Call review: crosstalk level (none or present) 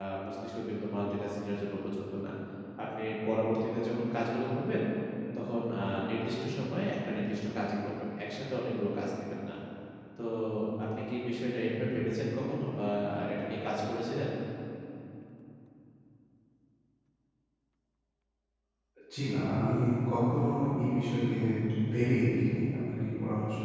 none